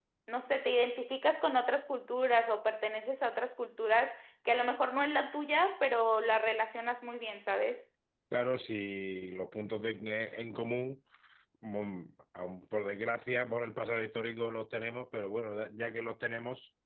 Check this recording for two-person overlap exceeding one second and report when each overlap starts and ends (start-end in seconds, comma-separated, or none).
none